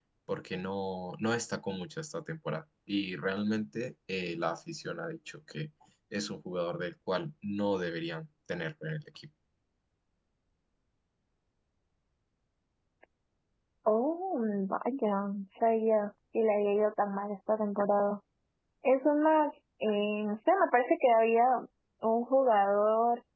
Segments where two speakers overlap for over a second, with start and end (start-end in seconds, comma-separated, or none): none